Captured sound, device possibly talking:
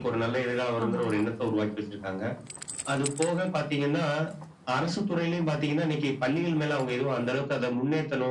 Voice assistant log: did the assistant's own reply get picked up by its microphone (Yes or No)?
Yes